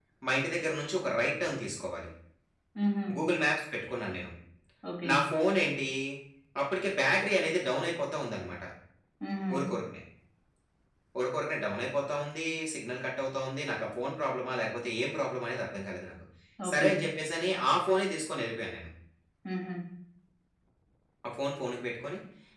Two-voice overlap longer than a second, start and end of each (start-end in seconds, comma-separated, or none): none